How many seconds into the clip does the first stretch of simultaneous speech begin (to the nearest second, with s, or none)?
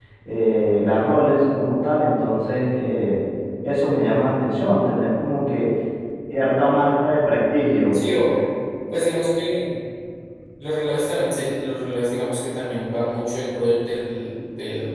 none